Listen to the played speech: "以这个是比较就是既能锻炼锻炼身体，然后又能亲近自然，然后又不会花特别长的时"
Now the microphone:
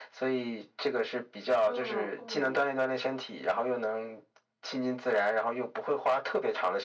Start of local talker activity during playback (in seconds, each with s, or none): 1.6 s